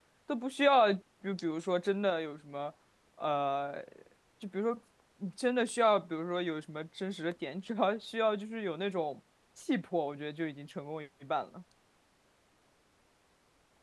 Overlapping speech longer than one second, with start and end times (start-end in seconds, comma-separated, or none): none